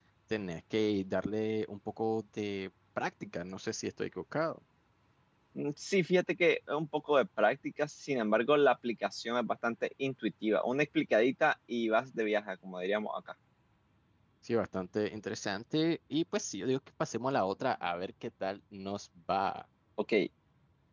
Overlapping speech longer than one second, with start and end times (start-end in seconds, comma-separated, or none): none